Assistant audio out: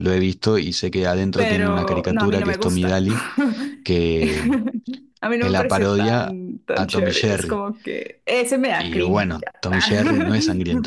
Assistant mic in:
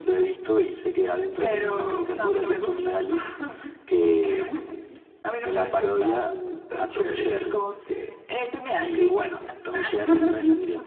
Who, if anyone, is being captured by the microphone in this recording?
echo only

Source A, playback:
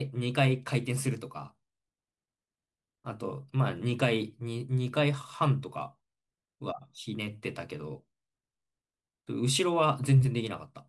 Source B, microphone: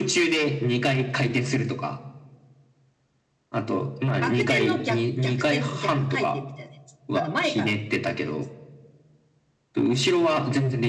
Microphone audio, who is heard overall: both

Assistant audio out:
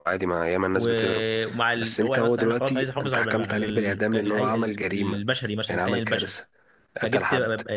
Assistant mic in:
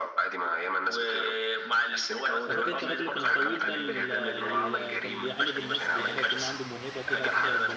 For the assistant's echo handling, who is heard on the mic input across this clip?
both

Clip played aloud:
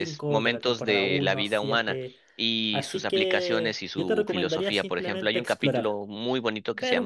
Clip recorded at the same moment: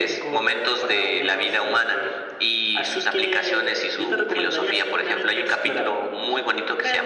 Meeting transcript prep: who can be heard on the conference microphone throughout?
echo only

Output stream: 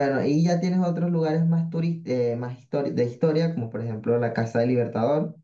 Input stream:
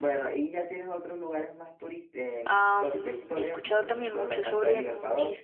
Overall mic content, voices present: both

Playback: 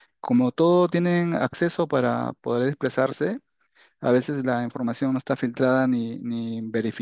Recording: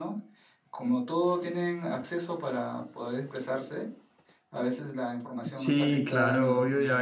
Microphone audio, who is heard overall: both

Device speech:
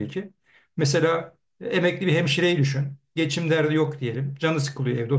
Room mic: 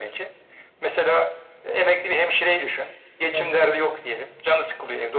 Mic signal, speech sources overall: both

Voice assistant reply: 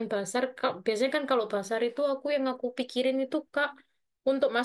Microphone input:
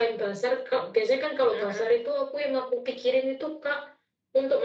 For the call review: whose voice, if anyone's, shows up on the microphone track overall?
both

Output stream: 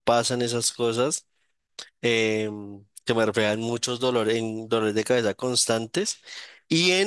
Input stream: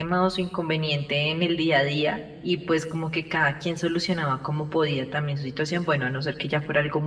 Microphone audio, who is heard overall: user only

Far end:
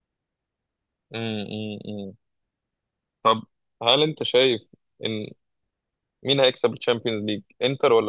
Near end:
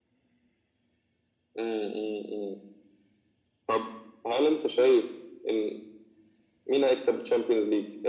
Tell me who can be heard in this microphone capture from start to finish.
echo only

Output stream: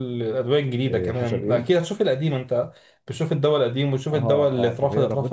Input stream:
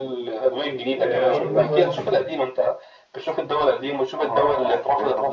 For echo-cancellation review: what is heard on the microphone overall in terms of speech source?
both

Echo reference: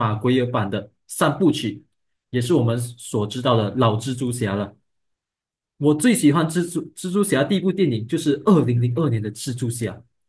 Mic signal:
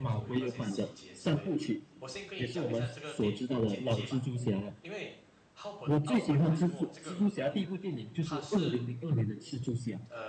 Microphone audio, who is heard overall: both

